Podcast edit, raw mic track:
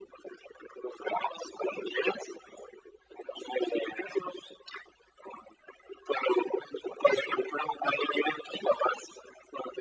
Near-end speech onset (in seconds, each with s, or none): none